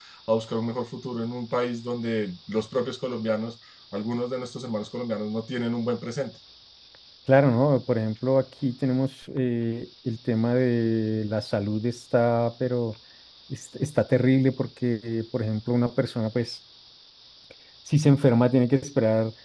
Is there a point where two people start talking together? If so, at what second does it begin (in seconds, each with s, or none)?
none